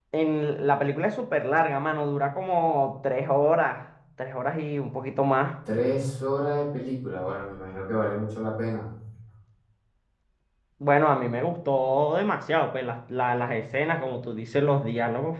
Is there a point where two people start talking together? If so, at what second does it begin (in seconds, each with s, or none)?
none